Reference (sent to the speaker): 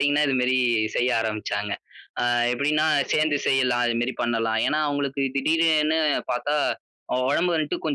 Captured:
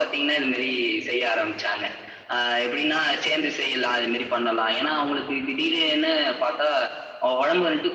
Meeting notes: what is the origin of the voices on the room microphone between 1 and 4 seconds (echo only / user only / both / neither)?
echo only